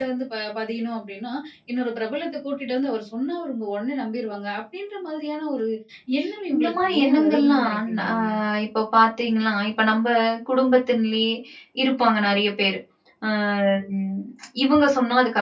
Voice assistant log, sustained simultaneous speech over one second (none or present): present